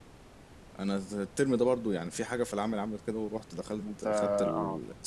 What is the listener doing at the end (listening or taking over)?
listening